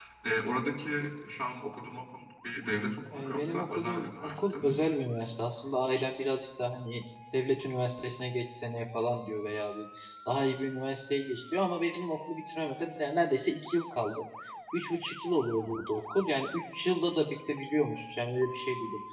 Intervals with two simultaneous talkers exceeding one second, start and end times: 3.1-4.8

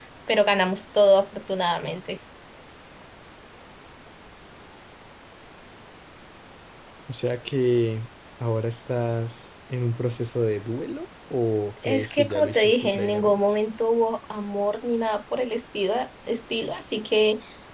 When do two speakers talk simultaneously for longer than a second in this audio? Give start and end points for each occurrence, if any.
11.8-13.4

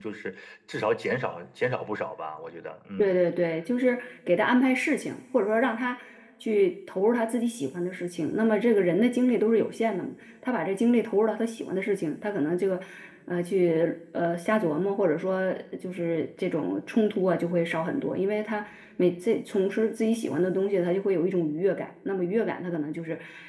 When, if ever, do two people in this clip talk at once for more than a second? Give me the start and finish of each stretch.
none

